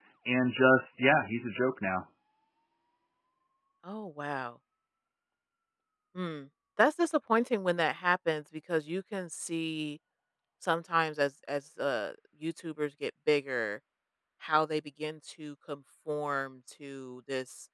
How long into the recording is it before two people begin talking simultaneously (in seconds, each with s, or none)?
none